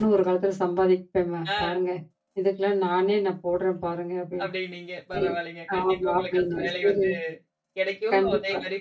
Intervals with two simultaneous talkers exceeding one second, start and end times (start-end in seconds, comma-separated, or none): 5.8-7.0